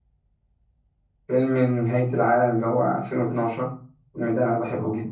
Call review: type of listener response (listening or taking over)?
taking over